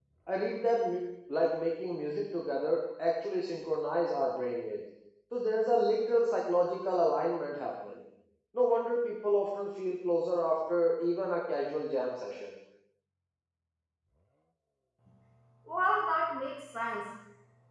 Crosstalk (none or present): none